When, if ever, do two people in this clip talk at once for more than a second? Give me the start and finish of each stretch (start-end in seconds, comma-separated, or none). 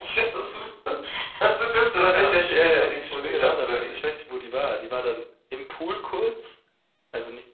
2.1-3.9